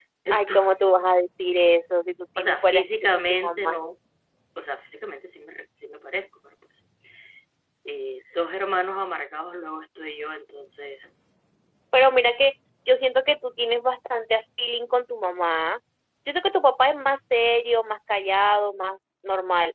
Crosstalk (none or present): present